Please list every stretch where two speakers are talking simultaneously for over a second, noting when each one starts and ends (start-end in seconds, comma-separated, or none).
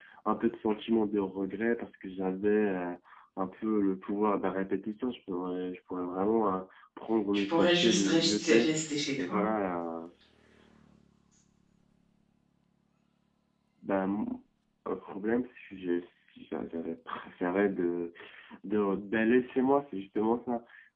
7.3-8.7